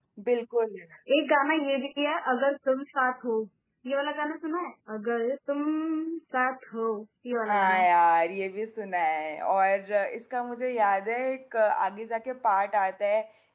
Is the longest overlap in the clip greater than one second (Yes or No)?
No